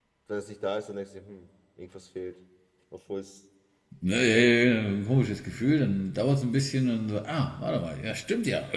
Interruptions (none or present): none